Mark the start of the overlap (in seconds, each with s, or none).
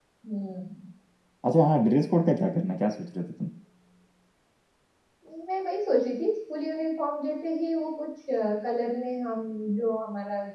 none